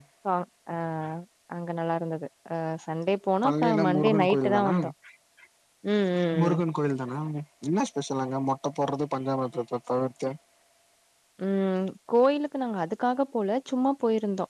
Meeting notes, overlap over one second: present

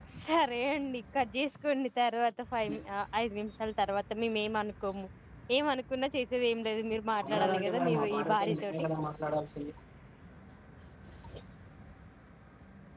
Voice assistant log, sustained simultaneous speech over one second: present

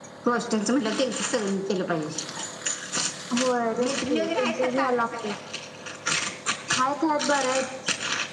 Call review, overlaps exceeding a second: present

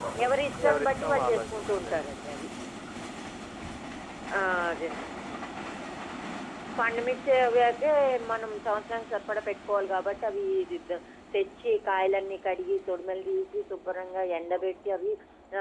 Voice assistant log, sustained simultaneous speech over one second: present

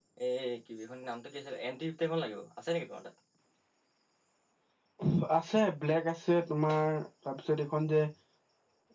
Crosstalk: none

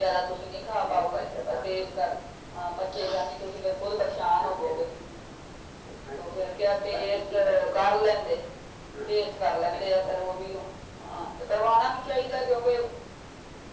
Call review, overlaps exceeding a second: present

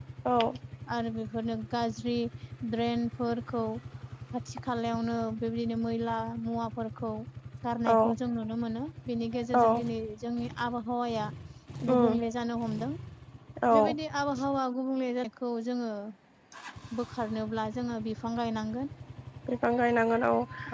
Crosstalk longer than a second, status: none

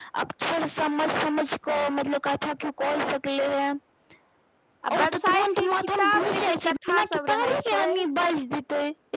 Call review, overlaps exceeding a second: present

